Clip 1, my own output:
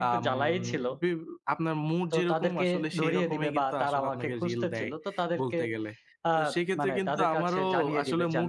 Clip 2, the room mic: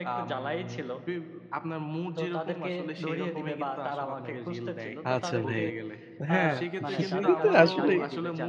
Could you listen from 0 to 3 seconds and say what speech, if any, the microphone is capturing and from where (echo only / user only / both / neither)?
echo only